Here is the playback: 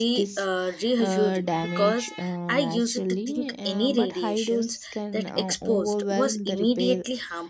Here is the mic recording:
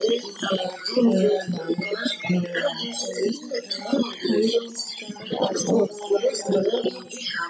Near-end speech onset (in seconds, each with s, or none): none